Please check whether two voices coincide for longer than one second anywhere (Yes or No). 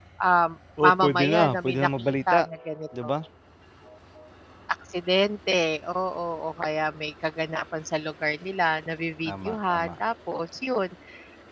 Yes